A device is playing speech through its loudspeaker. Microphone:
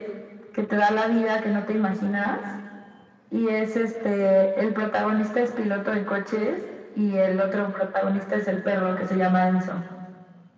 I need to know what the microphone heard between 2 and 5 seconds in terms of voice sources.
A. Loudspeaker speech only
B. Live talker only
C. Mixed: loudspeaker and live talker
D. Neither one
A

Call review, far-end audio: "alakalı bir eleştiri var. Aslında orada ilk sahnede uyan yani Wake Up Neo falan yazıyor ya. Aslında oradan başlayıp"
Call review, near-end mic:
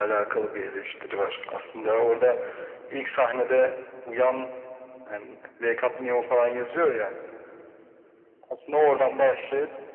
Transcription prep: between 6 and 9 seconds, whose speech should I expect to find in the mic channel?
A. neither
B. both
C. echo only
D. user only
C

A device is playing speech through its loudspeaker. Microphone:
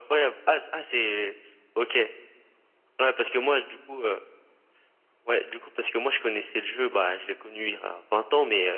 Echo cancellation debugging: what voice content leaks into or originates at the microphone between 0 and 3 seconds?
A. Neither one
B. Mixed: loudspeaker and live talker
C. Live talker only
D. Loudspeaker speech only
D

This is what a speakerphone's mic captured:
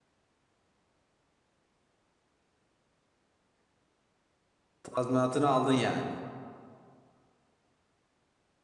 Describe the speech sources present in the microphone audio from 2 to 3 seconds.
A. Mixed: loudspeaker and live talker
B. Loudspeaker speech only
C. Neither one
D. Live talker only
C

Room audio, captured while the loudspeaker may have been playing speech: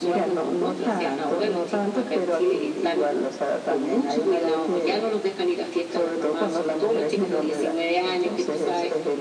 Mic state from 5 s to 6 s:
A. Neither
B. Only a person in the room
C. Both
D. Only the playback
D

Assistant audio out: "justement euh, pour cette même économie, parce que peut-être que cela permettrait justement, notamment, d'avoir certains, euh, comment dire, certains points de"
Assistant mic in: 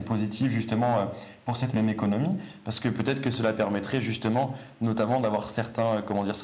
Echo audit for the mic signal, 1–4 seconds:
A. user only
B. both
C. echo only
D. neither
C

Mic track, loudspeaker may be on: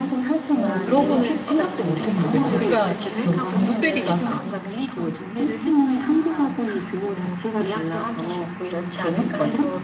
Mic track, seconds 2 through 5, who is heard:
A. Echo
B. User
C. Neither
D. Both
D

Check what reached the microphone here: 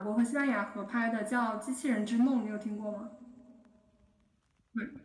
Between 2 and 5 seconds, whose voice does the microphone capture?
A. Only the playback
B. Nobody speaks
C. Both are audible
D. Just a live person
D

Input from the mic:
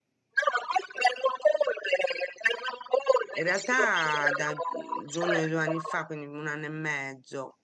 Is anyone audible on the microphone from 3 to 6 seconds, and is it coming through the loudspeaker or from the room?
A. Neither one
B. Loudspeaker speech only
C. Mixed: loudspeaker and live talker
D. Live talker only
C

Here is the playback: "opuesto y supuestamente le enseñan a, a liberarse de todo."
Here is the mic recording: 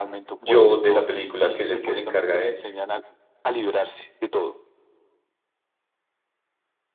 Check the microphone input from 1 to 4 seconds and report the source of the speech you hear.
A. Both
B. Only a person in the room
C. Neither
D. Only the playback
A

